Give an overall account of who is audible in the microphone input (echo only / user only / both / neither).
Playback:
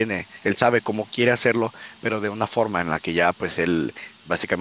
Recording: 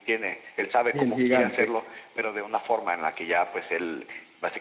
both